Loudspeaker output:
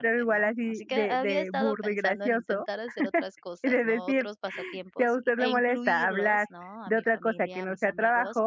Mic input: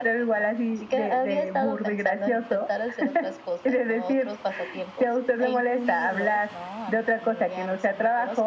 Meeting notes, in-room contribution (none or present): none